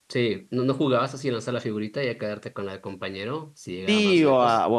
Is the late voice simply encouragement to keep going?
No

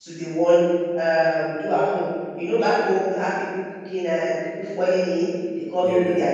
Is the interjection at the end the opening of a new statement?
No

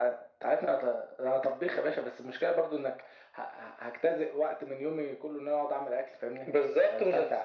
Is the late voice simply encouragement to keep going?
No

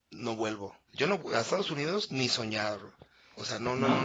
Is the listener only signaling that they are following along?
Yes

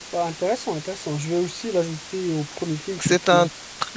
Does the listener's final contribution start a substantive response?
Yes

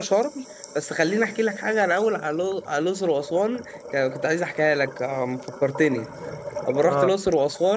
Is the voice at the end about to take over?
No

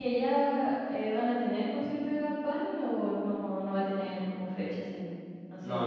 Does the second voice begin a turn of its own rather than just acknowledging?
Yes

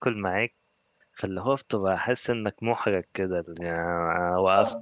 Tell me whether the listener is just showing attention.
Yes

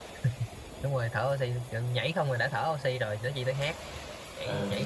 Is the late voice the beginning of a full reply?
No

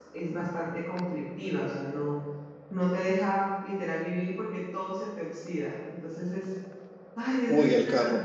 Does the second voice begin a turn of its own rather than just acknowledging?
Yes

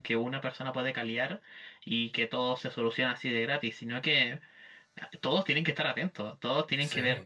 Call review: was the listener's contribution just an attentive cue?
Yes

